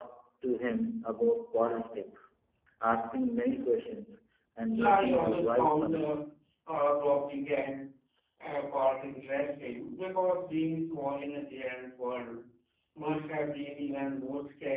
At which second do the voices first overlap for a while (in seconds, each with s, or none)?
4.7 s